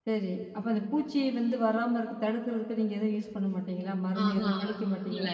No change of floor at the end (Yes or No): No